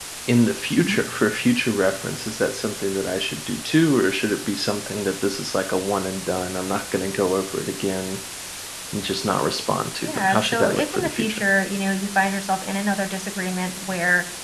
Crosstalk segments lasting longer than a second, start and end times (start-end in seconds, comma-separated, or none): 10.0-11.4